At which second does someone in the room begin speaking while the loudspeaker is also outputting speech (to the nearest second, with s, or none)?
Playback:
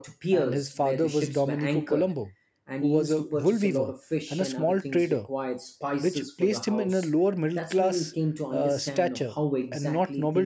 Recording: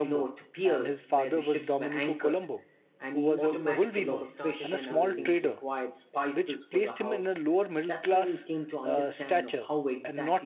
3 s